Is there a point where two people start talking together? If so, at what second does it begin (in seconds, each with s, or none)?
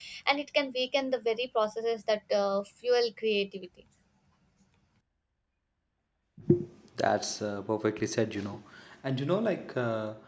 none